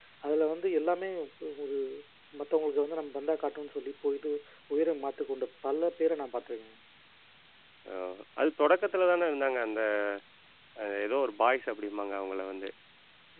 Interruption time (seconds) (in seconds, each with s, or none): none